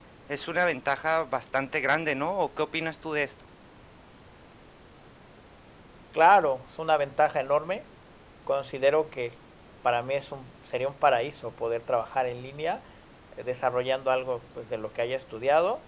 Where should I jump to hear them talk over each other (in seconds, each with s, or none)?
none